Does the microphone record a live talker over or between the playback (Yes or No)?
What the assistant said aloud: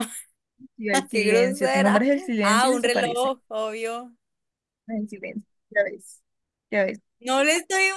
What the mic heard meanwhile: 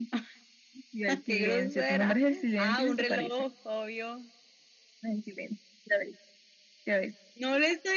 No